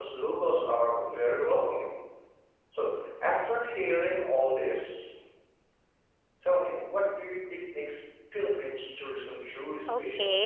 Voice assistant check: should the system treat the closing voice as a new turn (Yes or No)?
Yes